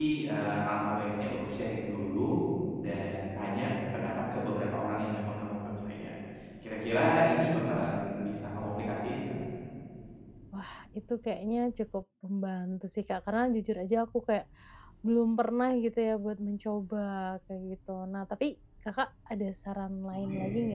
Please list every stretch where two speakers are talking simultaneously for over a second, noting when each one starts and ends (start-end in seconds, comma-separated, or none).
none